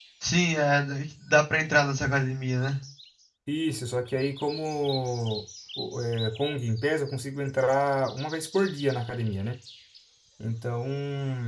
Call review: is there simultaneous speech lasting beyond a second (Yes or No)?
No